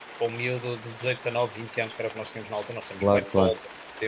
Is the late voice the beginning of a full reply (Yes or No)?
No